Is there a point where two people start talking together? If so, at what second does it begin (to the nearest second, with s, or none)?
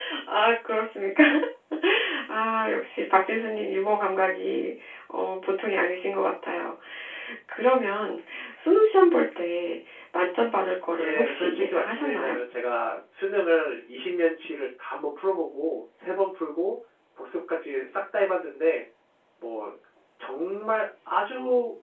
11 s